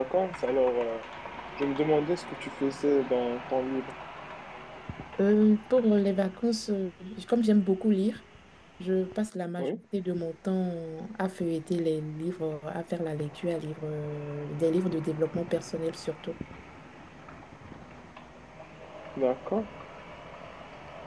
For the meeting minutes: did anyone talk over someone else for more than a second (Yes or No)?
No